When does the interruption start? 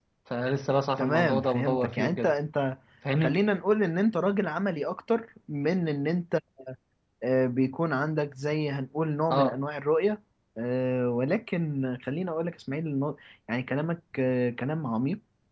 1 s

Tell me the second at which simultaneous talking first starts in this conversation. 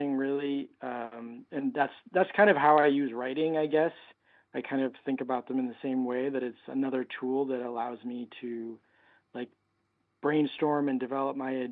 none

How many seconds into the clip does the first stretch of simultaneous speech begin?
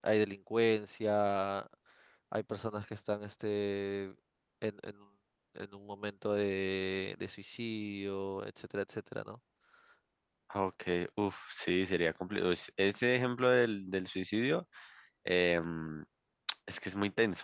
none

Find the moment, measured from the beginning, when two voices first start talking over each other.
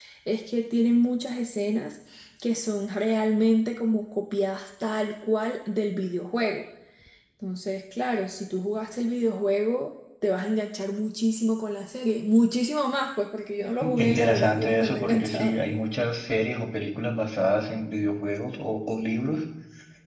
14 s

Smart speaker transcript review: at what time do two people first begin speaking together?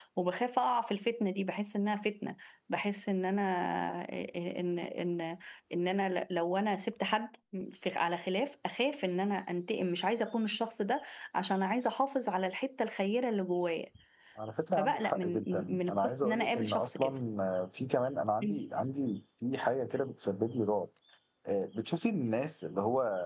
15 s

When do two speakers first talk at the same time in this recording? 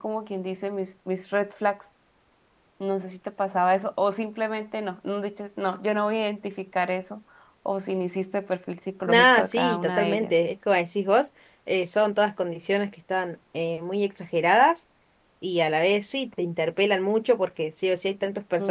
9 s

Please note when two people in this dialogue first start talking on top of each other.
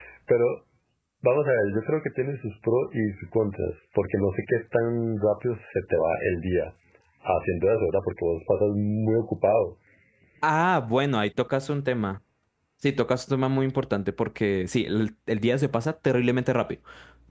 none

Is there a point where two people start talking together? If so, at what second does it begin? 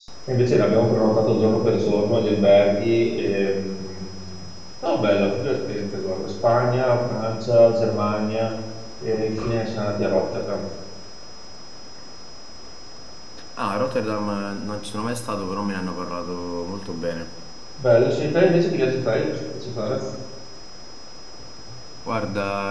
none

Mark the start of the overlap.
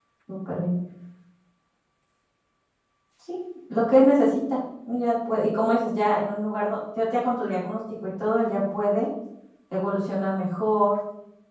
none

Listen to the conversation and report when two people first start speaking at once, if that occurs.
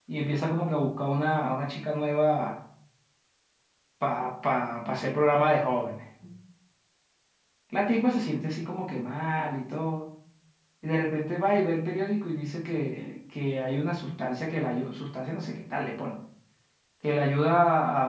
none

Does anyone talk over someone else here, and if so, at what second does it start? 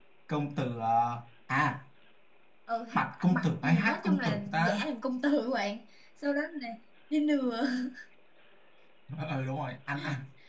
3 s

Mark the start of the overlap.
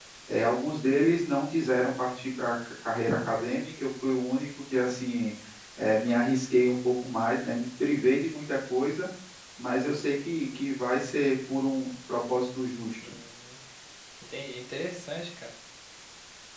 none

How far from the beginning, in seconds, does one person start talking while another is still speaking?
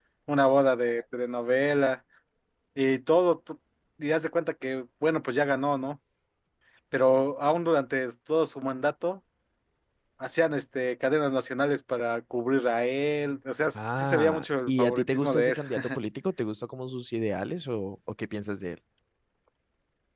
14 s

